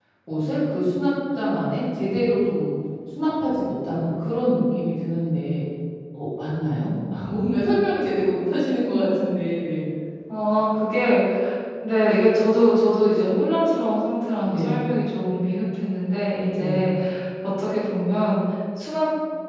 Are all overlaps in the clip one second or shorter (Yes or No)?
Yes